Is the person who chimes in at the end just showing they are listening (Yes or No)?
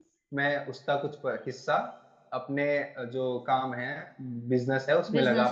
Yes